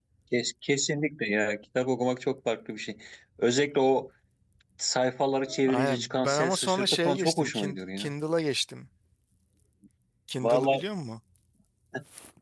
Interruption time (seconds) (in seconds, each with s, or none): 5.7 s